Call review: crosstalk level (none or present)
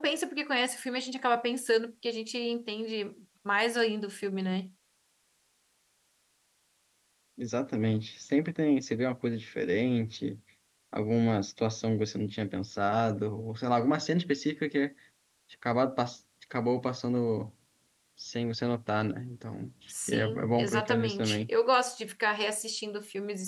present